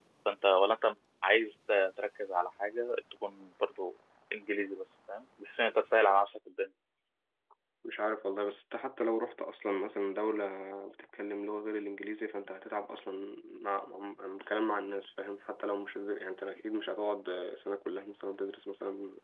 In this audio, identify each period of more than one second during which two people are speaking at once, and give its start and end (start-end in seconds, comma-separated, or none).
none